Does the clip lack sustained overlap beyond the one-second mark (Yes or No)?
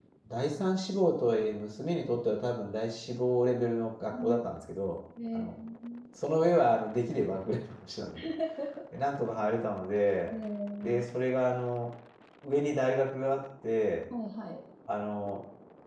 Yes